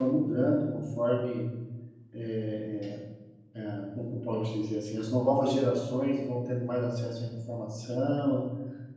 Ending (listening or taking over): listening